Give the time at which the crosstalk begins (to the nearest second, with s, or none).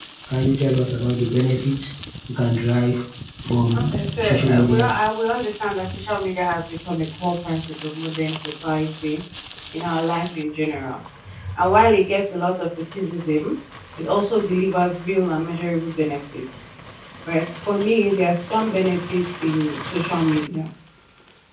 4 s